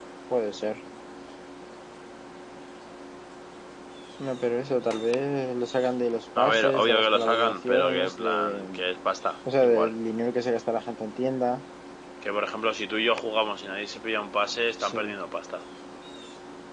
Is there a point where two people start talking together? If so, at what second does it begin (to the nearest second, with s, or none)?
6 s